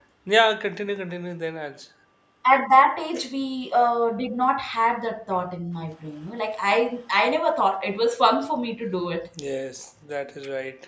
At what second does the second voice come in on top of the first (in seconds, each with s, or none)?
none